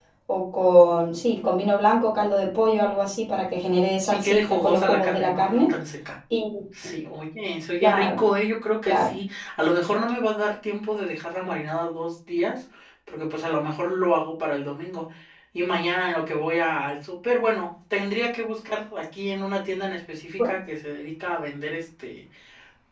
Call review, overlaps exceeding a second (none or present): present